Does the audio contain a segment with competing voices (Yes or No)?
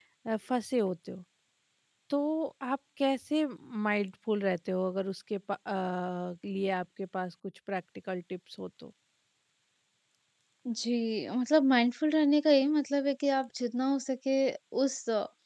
No